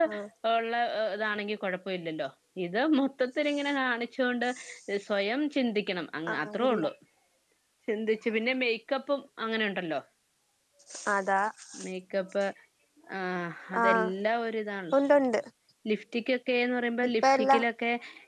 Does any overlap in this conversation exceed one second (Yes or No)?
No